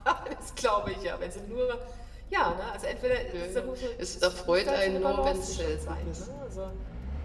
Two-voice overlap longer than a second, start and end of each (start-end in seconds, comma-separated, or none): 3.3-6.2